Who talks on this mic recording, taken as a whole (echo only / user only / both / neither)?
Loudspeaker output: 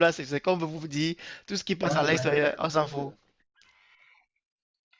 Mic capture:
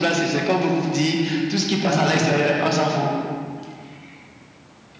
echo only